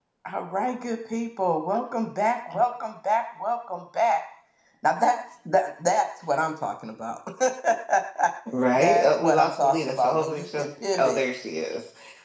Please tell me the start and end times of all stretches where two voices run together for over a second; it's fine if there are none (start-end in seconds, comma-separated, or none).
8.8-10.7